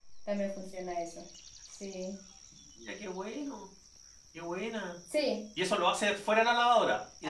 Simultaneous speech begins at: none

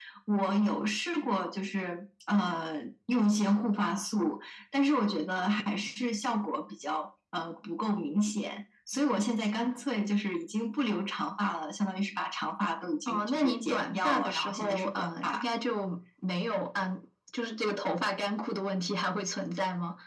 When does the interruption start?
13 s

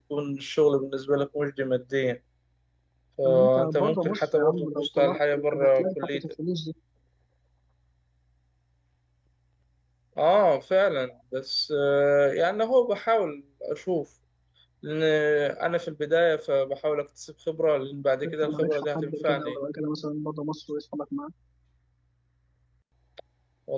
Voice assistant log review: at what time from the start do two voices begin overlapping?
3 s

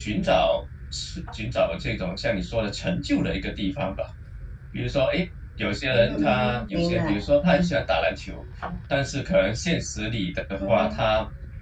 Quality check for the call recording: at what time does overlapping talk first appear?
6 s

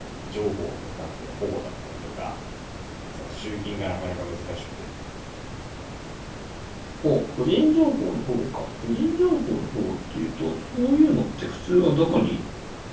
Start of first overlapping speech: none

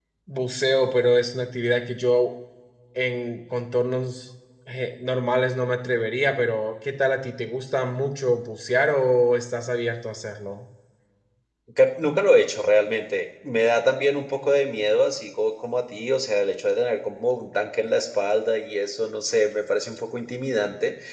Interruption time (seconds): none

